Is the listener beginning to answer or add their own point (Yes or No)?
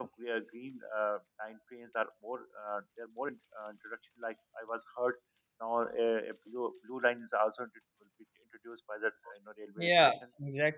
Yes